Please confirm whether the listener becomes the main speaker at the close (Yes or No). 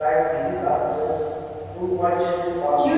Yes